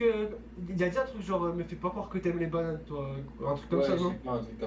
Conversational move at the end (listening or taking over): taking over